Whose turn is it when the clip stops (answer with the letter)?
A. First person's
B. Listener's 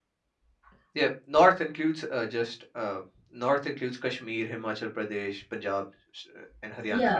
B